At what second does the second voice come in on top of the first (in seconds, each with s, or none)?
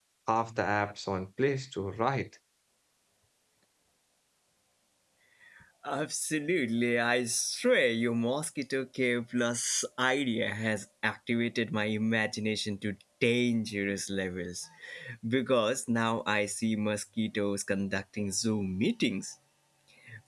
none